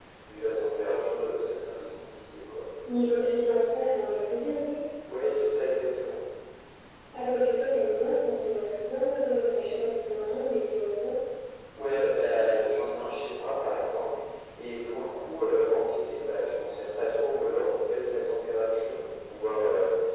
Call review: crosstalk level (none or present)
none